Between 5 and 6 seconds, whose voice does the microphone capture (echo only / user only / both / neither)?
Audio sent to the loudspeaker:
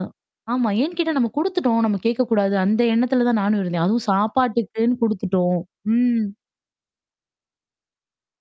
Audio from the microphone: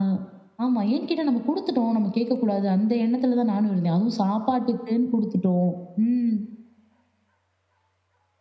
echo only